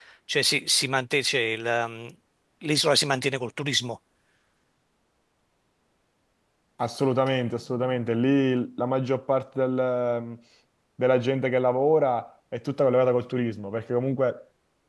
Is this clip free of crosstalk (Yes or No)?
Yes